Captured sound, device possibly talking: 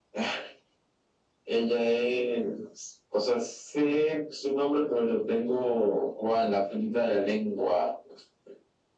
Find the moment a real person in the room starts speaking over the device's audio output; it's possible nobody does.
none

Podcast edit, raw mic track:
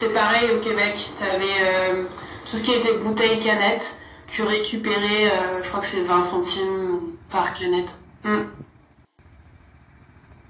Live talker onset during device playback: none

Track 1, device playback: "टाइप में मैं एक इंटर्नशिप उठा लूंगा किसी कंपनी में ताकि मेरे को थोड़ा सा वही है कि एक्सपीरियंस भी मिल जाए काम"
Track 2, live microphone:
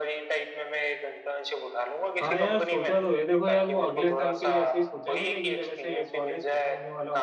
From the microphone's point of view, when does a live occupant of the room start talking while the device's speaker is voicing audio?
2.2 s

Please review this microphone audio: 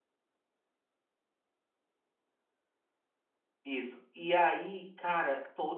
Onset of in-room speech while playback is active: 3.6 s

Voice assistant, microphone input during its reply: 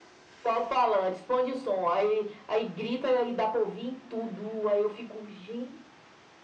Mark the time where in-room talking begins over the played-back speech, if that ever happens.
none

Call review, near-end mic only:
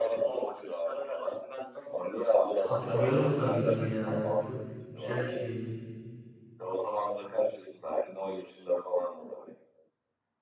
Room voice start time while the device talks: 2.6 s

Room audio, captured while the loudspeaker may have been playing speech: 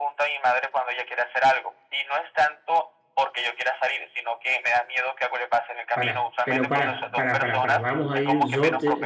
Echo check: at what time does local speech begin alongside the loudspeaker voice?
5.9 s

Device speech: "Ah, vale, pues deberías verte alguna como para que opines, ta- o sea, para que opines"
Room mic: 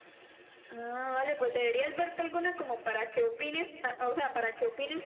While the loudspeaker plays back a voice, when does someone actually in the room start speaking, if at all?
none

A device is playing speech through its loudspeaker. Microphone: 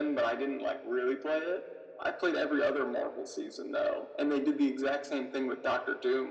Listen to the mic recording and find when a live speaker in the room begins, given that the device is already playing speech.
none

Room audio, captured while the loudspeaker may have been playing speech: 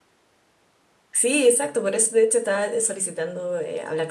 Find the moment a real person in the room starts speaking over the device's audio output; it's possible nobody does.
1.1 s

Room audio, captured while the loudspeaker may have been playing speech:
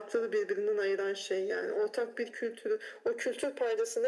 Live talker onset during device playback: none

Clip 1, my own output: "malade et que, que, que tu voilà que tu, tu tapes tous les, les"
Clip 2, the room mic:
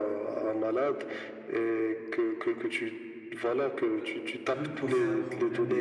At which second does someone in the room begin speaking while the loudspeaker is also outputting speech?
4.0 s

